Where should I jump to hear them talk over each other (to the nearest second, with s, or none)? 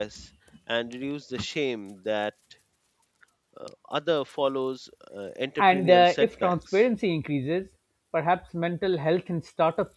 6 s